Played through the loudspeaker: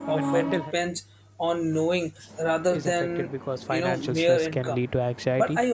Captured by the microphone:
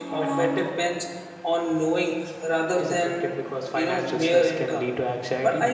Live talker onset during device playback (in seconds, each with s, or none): none